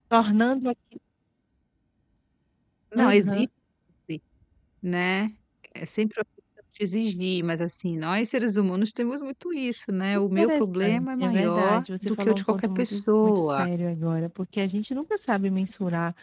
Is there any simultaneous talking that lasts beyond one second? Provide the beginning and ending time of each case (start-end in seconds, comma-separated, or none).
10.1-13.7